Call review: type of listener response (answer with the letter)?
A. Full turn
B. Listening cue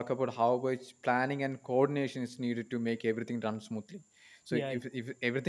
B